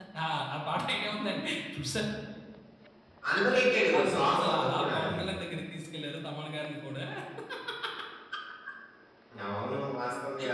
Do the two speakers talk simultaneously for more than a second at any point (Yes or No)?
Yes